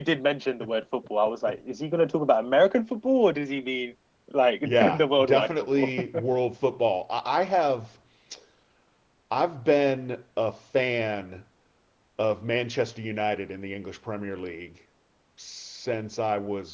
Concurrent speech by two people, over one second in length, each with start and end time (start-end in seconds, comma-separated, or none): 4.6-5.9